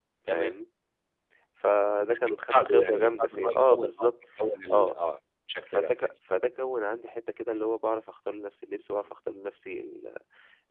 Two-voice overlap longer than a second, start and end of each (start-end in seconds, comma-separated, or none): 2.1-4.1